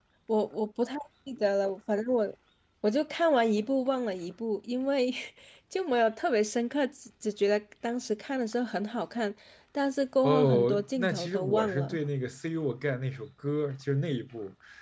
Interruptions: present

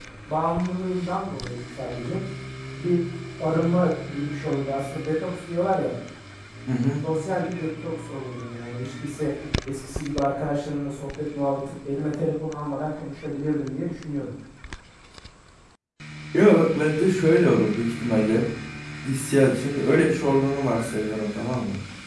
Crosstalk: none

